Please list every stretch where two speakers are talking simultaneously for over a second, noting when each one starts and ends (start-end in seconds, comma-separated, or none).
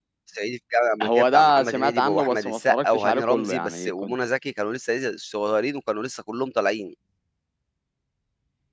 1.0-4.1